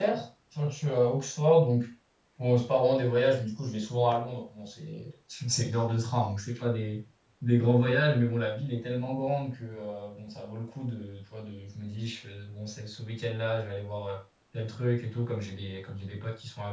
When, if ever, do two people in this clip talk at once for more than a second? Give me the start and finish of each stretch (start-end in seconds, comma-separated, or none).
none